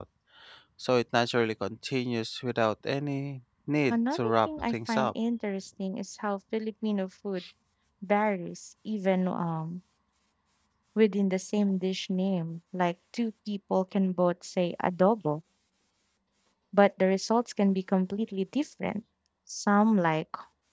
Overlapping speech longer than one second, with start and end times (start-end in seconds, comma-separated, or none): 3.9-5.1